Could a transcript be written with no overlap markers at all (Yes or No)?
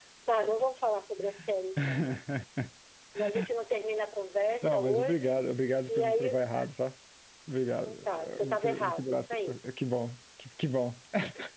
No